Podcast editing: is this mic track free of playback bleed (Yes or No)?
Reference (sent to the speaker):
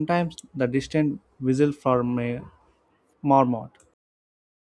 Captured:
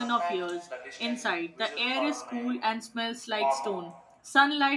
No